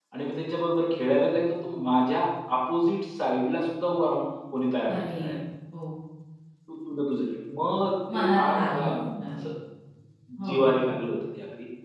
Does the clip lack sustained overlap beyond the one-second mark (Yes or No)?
No